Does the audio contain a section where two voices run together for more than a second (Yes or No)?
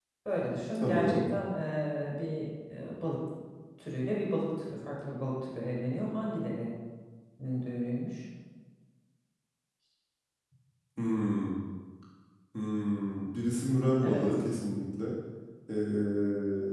No